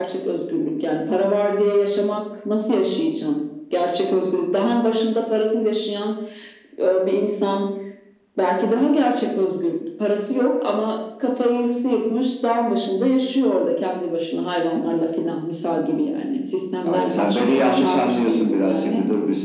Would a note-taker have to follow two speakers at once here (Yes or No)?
Yes